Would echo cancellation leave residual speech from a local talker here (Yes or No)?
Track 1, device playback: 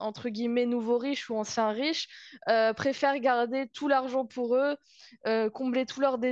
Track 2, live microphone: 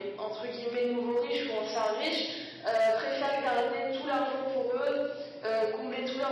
No